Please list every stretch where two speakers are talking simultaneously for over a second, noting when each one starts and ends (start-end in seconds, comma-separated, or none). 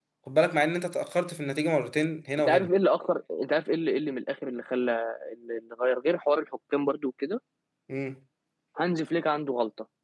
none